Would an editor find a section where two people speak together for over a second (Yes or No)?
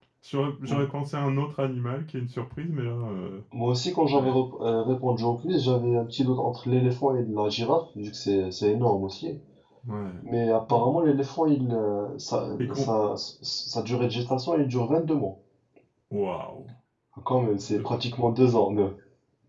No